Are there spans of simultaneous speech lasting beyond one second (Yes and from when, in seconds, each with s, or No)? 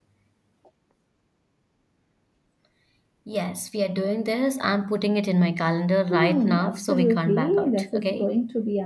Yes, from 6.1 s